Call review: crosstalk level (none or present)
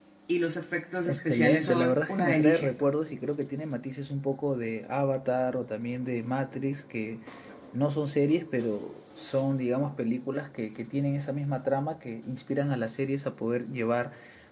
present